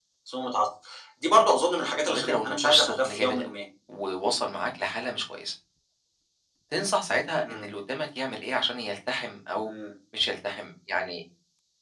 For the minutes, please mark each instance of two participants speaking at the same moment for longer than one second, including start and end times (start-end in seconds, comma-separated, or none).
2.1-3.5